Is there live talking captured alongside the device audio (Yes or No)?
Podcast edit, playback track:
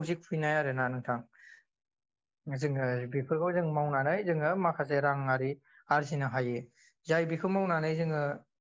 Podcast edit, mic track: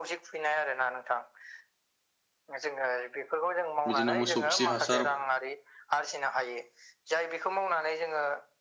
Yes